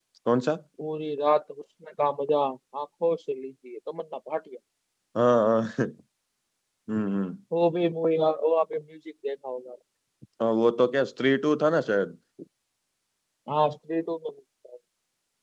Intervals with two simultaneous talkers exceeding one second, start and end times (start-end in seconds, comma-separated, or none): none